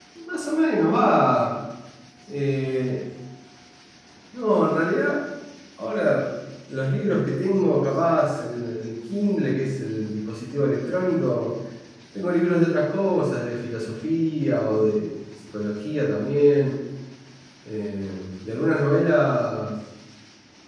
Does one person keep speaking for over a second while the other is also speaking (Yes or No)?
No